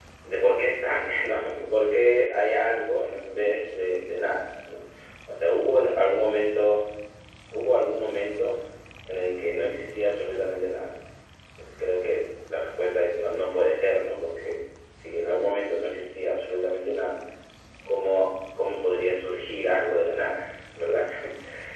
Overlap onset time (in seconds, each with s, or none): none